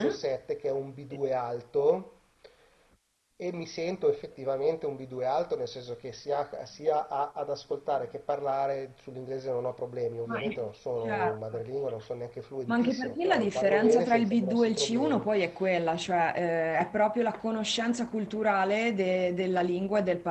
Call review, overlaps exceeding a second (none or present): present